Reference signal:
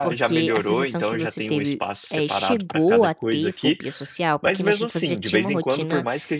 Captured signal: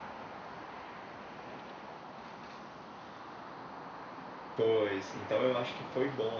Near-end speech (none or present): present